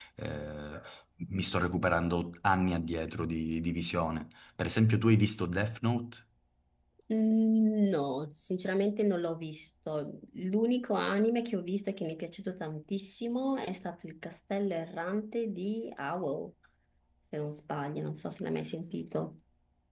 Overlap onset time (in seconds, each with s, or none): none